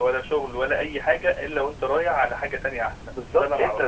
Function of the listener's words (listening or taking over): taking over